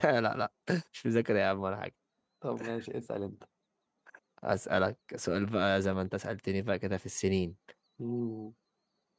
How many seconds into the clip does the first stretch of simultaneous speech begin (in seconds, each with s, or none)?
none